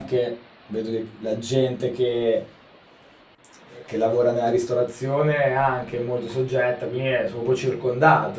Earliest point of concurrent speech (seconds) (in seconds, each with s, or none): none